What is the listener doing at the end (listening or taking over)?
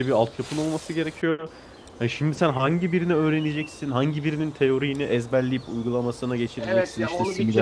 taking over